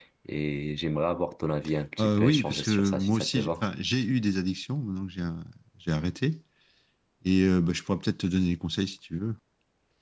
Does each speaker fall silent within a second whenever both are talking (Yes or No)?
No